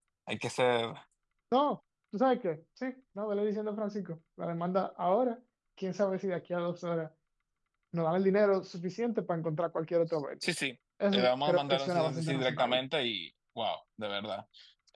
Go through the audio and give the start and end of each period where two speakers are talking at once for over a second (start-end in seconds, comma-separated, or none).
11.1-12.8